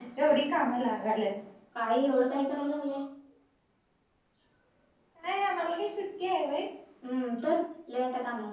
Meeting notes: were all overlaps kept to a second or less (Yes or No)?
Yes